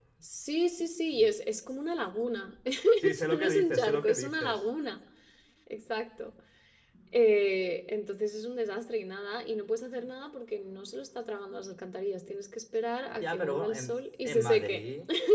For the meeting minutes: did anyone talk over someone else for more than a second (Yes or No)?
Yes